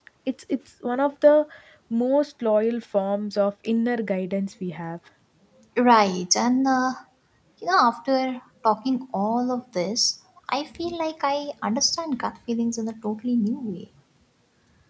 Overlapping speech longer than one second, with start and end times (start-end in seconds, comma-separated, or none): none